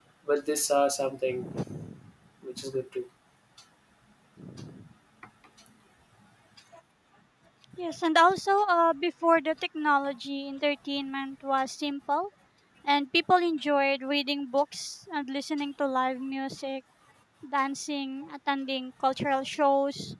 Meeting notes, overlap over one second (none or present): none